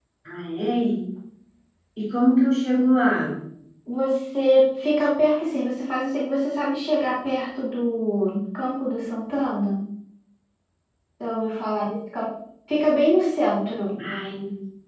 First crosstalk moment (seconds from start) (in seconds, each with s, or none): none